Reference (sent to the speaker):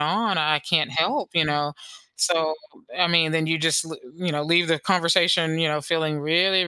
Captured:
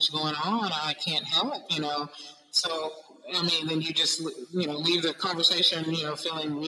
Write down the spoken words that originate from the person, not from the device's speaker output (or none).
none